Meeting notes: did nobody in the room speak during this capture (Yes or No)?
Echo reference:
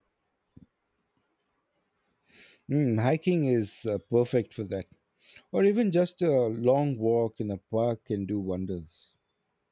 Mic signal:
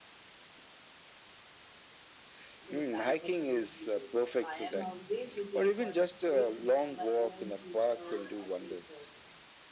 No